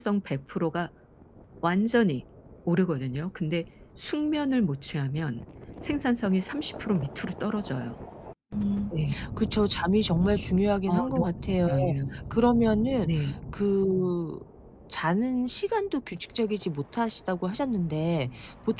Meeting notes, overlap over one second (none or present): none